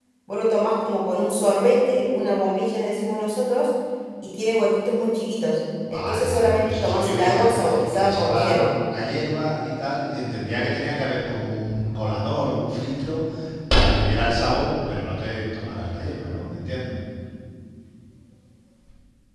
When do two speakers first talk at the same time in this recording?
6 s

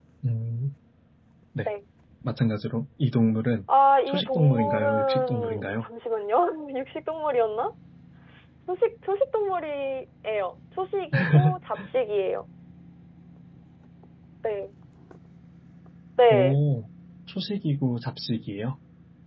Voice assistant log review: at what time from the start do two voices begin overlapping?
4 s

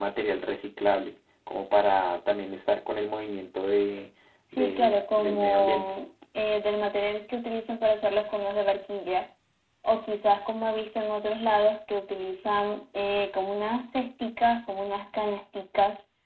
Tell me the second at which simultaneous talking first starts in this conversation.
5 s

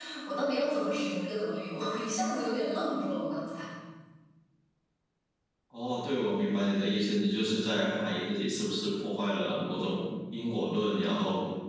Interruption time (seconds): none

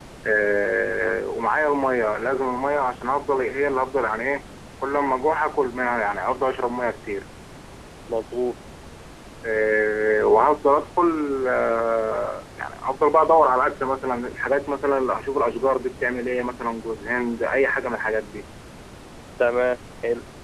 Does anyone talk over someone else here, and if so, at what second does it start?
none

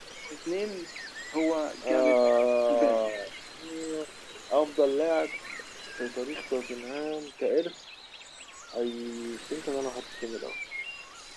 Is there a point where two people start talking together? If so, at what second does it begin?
2 s

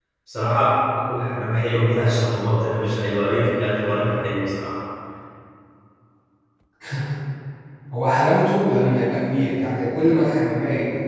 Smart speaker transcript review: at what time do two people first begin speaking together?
none

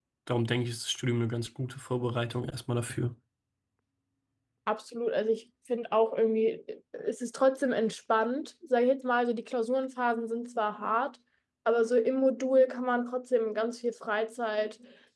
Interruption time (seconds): none

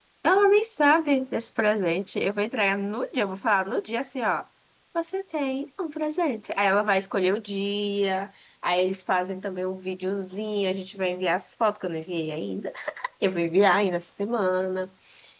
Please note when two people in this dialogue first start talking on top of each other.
none

